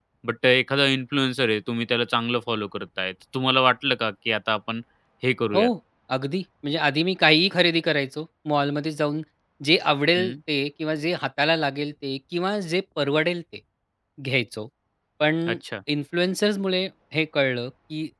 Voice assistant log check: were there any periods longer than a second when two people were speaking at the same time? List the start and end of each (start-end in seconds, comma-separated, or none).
none